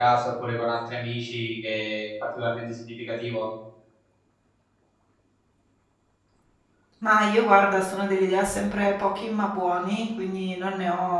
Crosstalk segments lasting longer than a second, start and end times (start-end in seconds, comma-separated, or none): none